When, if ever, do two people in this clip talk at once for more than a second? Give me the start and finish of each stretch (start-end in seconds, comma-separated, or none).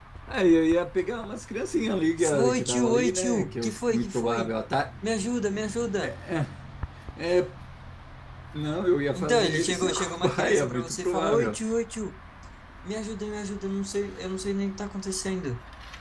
2.3-4.5, 9.2-11.6